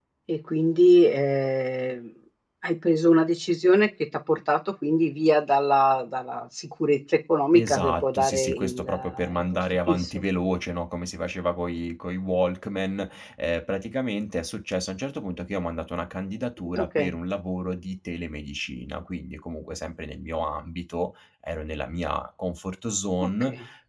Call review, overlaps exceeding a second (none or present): present